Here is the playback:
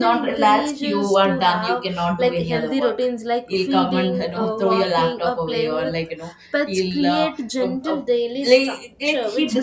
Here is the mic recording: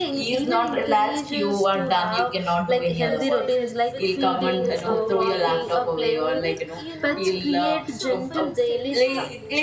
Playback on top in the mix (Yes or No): Yes